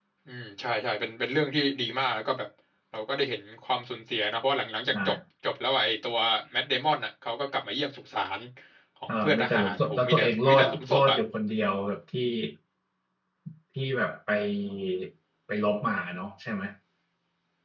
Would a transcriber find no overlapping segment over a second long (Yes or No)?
No